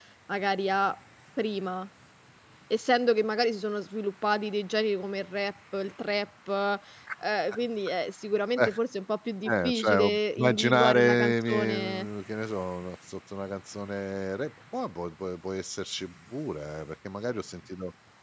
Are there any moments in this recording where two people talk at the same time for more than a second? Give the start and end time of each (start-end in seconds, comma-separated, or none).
9.5-12.1